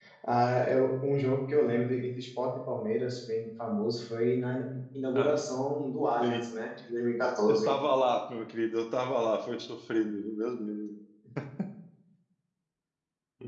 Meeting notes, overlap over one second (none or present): none